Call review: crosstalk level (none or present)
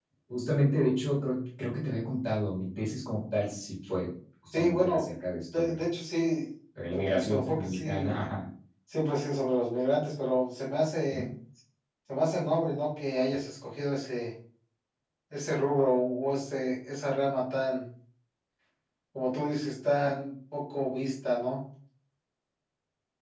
present